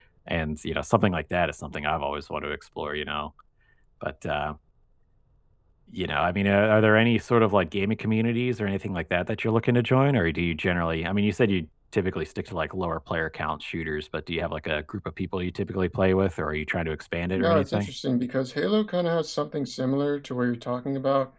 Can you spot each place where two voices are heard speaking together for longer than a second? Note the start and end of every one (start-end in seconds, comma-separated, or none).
none